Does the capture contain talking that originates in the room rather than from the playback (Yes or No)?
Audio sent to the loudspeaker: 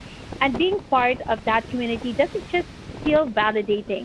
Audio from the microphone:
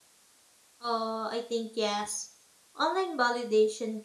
Yes